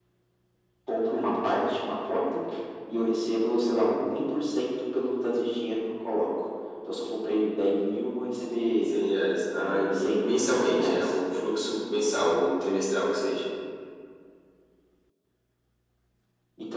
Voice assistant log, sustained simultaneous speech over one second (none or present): present